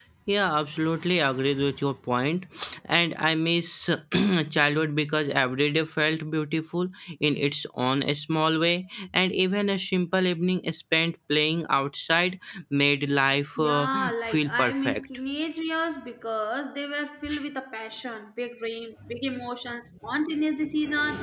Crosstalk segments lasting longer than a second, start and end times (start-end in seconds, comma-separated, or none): 13.6-15.0